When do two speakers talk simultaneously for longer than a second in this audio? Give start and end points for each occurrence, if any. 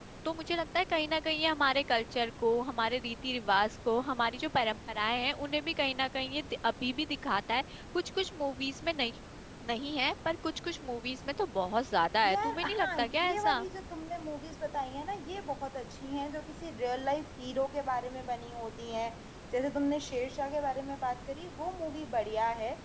12.3-13.7

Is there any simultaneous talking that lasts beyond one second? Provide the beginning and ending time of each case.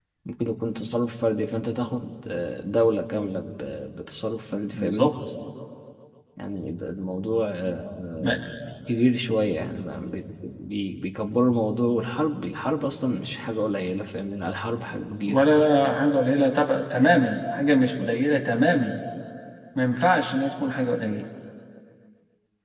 none

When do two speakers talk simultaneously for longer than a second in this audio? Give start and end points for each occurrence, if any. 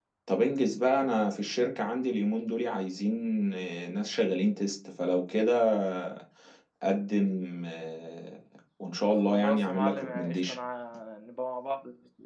9.2-10.6

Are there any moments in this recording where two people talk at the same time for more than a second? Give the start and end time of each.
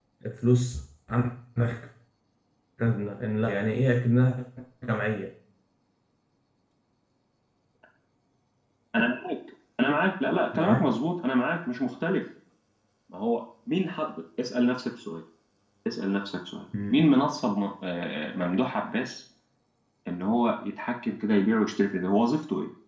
none

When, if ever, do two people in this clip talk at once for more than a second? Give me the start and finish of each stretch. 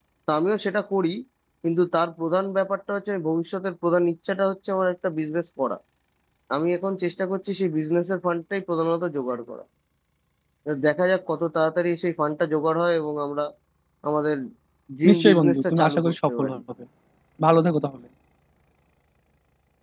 15.1-16.6

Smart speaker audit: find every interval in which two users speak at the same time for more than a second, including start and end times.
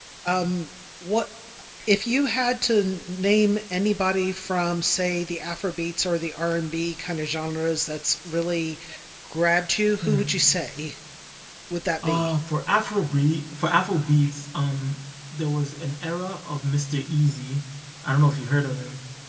none

